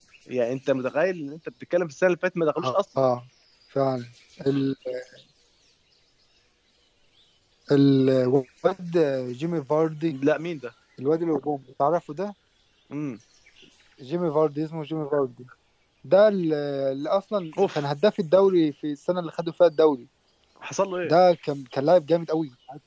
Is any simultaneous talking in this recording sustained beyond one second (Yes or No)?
No